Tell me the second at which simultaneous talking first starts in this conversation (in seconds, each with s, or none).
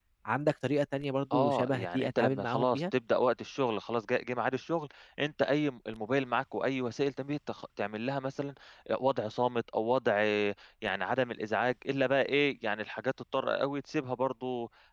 1.3 s